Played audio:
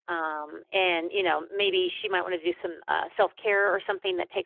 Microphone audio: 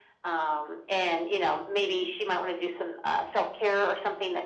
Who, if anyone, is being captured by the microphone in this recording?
echo only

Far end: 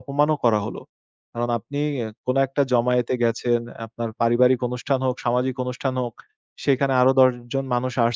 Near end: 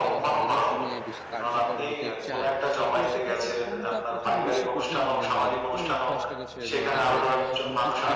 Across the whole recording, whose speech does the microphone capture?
both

